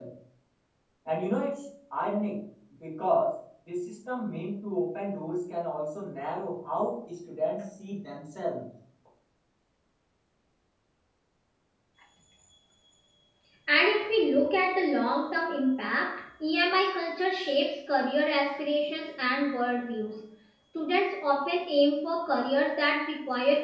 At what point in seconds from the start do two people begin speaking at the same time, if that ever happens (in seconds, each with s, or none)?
none